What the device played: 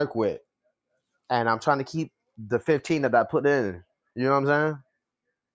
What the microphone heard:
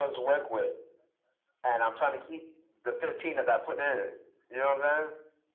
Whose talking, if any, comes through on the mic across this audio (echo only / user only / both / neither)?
echo only